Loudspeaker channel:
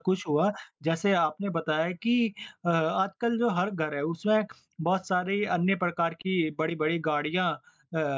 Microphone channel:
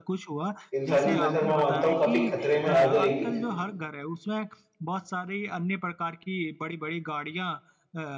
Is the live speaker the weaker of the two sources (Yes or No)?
No